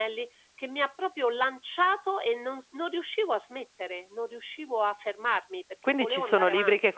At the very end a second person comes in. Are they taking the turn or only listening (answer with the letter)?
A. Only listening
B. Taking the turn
B